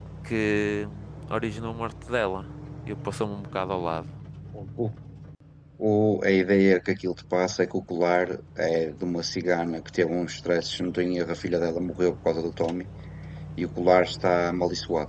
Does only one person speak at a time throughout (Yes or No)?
Yes